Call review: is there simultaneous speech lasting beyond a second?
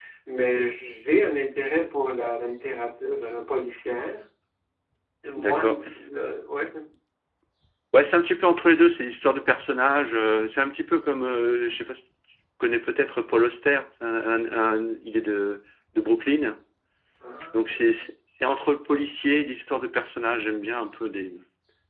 No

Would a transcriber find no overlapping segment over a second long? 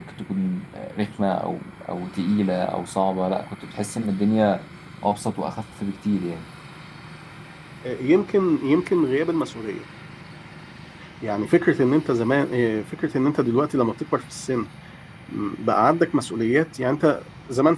Yes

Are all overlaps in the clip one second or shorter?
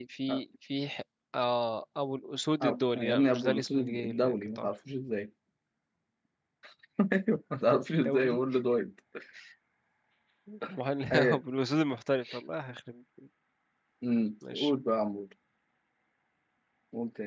No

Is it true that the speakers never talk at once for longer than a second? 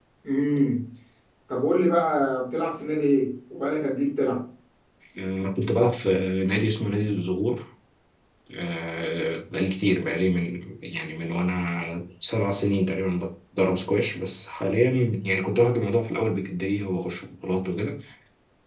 Yes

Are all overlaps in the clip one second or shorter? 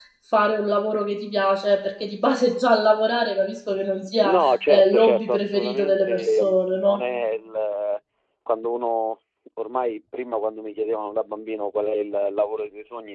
No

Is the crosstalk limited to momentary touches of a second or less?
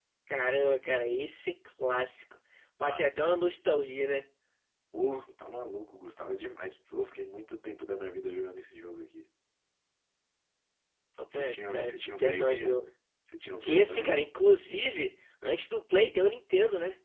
No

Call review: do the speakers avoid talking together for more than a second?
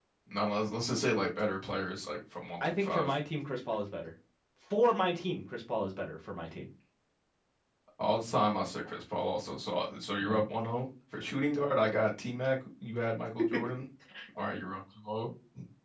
Yes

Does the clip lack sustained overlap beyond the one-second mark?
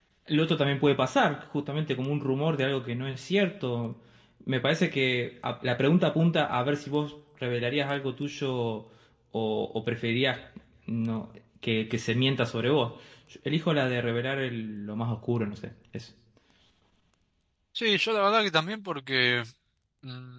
Yes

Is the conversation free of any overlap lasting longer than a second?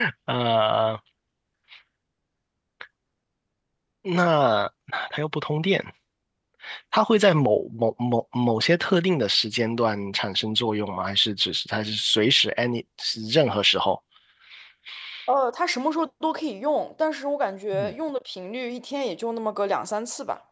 Yes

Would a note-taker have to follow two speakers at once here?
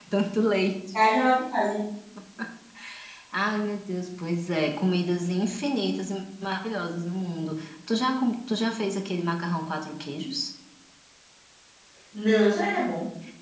No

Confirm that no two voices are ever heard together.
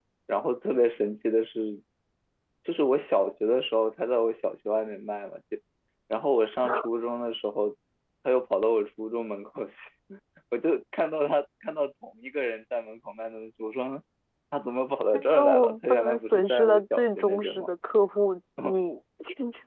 No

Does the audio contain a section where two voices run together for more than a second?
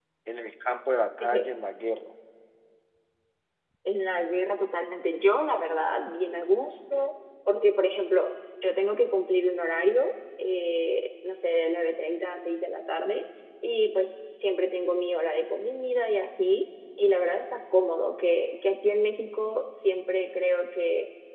No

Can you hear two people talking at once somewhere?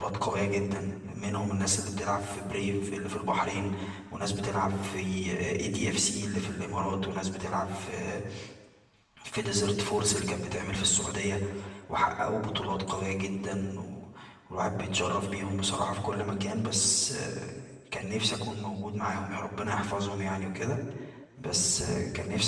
No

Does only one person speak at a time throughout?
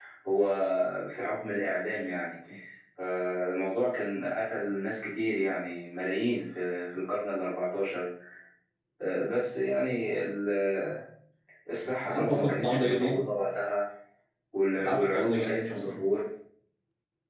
No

